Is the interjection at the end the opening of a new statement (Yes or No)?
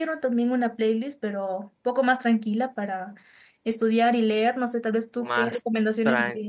Yes